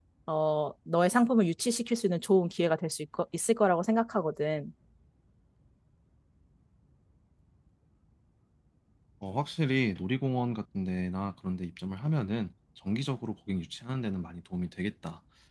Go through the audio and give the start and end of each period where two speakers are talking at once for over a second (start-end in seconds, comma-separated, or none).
none